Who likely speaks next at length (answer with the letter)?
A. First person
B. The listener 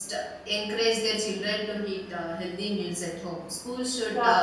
A